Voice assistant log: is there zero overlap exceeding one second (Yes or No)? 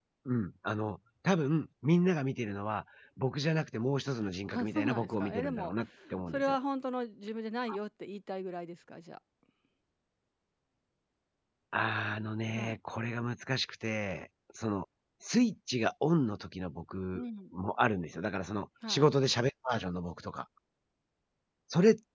No